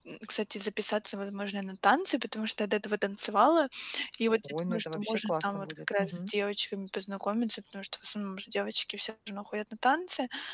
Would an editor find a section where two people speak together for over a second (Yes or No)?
Yes